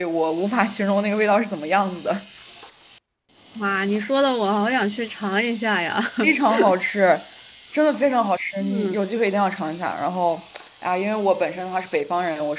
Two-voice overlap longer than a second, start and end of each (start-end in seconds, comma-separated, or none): none